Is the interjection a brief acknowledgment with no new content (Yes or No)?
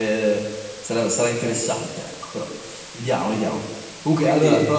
Yes